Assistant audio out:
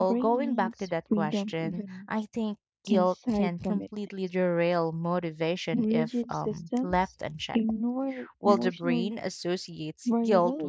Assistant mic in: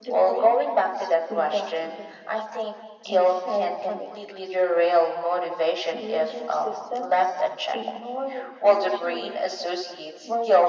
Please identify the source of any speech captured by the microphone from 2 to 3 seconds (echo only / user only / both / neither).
echo only